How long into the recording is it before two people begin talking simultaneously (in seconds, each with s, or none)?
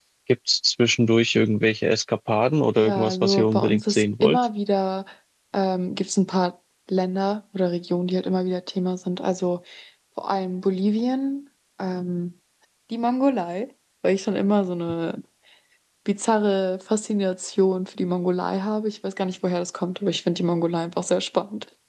2.8 s